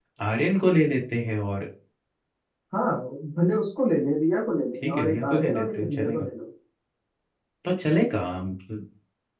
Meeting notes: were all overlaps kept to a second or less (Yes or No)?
No